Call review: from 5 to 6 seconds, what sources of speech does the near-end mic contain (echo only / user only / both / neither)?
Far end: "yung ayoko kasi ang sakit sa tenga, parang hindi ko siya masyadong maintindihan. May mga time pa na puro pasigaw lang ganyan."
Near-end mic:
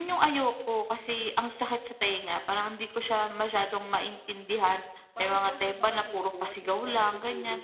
both